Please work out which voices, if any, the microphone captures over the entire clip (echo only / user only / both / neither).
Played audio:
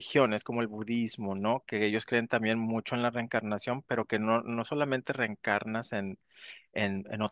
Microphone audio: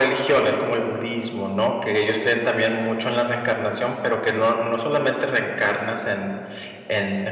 echo only